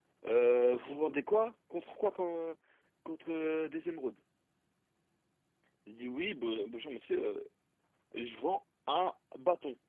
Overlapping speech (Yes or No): No